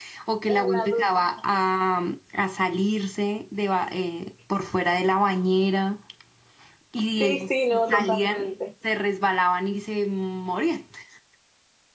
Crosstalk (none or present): present